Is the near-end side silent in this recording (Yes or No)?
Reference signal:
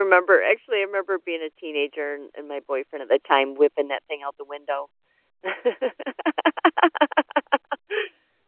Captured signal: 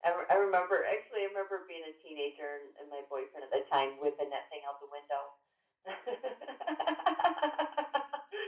Yes